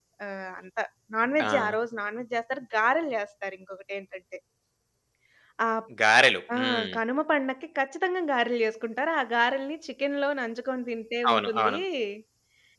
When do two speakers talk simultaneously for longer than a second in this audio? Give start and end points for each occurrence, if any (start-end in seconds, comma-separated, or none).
none